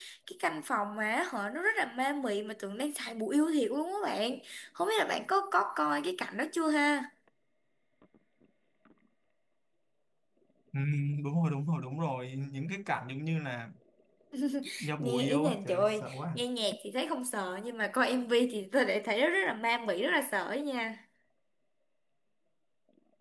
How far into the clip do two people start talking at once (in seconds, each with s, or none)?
15.0 s